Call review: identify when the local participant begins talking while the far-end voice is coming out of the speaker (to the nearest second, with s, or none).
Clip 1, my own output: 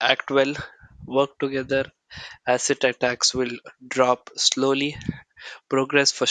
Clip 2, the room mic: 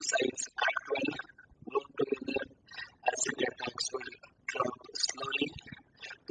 none